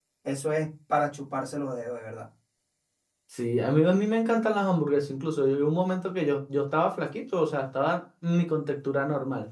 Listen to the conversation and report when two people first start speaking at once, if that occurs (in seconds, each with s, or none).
none